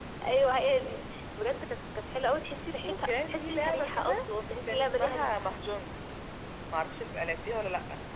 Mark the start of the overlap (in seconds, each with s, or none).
2.8 s